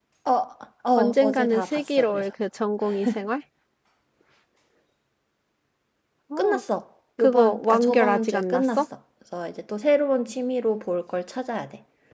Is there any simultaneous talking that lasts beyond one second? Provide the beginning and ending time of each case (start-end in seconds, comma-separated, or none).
1.0-2.3, 7.2-8.8